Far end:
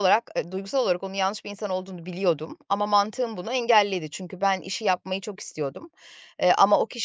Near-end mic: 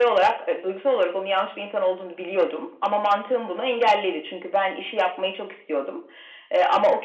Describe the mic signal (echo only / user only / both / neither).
echo only